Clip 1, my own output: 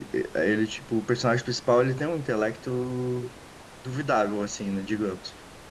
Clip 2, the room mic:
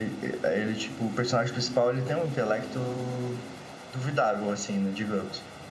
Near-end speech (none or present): none